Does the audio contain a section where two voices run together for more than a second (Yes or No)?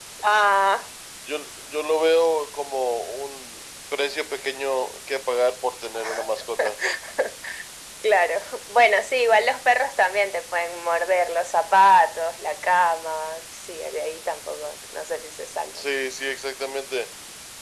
No